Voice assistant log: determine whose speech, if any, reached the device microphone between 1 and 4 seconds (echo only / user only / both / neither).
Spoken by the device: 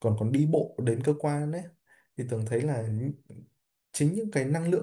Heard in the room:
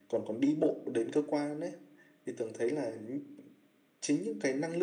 echo only